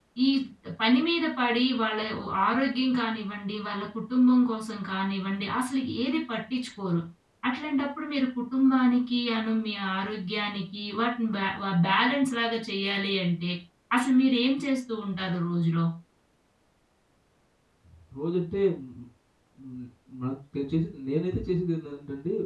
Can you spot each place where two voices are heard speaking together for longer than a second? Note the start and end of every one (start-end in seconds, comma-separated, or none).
none